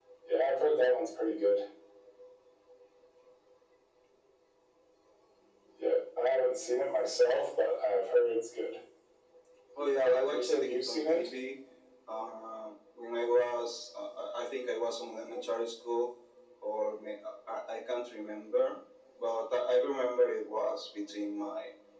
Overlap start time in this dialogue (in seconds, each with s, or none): 10.0 s